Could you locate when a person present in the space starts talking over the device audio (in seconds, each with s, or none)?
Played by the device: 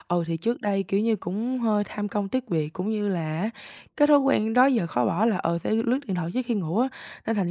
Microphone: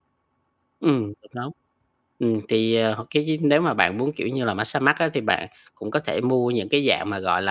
0.8 s